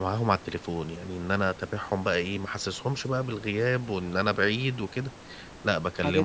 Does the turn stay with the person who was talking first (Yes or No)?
Yes